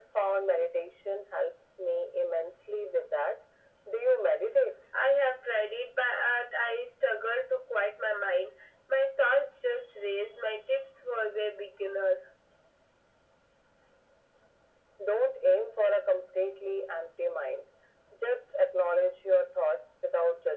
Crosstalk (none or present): none